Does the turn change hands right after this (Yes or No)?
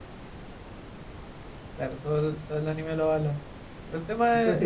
Yes